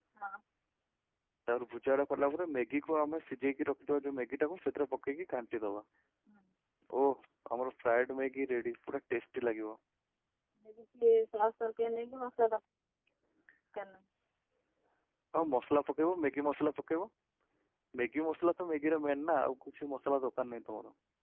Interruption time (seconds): none

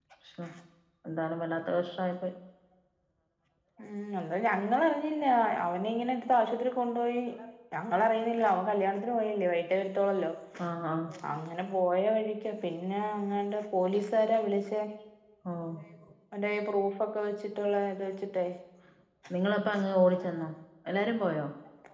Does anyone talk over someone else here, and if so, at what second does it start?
none

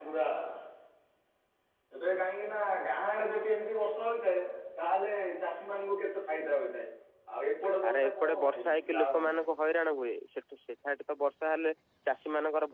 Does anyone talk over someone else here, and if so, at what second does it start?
7.9 s

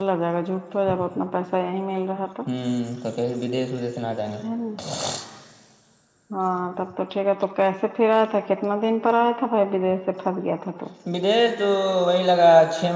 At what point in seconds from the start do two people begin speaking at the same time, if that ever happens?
none

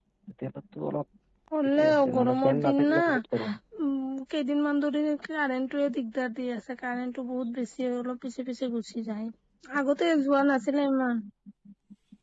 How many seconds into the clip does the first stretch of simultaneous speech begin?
1.8 s

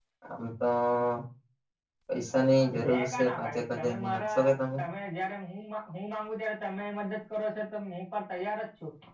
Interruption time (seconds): 2.6 s

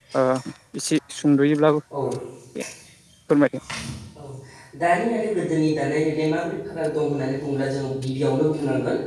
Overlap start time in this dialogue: none

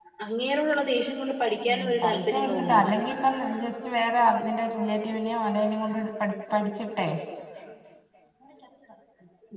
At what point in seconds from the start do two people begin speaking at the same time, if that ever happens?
1.7 s

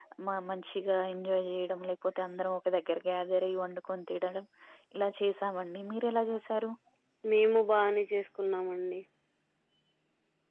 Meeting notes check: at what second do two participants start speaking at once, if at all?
none

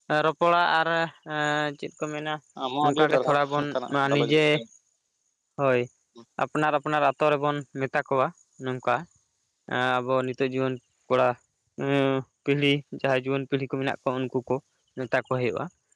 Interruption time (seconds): 2.8 s

